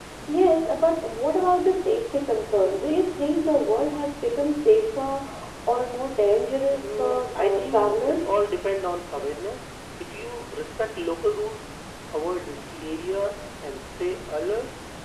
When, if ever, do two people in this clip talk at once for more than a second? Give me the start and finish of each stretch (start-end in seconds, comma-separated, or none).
7.0-8.2